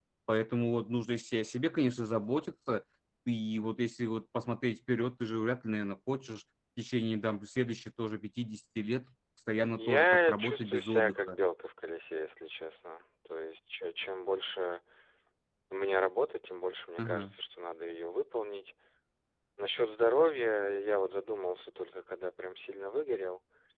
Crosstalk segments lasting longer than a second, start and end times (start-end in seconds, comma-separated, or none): 9.8-11.4